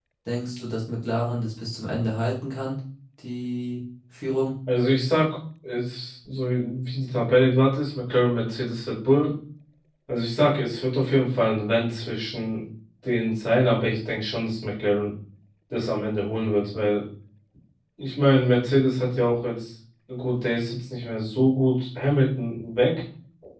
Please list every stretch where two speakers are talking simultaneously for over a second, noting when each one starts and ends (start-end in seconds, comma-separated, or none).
none